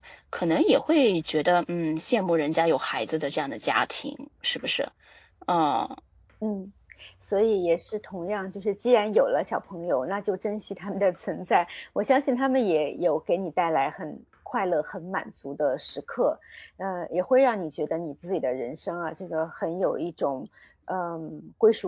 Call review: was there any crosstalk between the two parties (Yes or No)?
No